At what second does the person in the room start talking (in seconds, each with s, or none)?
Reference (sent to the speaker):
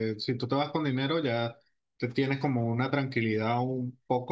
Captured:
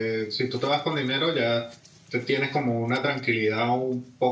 none